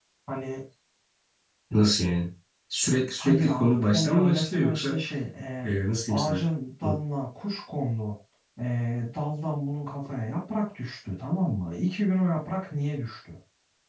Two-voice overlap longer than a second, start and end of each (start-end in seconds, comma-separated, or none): 3.2-5.0